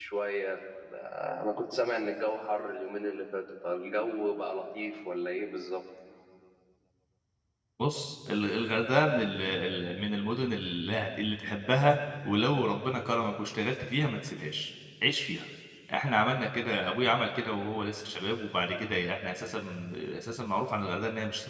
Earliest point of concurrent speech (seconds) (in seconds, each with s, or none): none